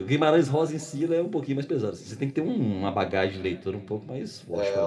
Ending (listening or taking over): taking over